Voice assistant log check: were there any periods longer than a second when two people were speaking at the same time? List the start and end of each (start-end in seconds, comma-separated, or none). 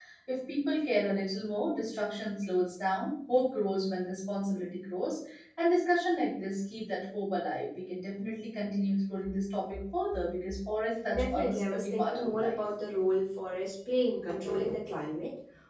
11.1-12.6